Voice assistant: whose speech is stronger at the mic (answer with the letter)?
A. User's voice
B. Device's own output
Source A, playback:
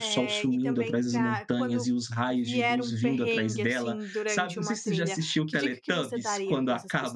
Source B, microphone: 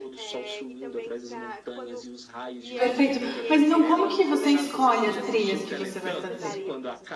A